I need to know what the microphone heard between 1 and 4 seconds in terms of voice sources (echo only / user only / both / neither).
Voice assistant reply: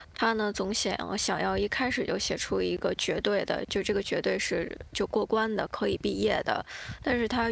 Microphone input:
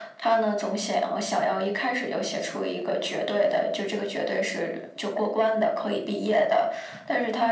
echo only